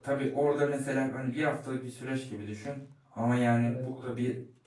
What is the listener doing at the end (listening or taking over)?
listening